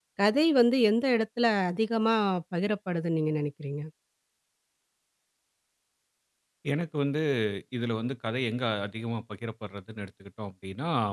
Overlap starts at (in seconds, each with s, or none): none